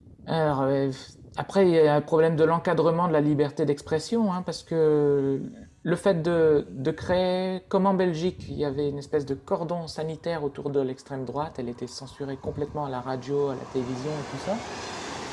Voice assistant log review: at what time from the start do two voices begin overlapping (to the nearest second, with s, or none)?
none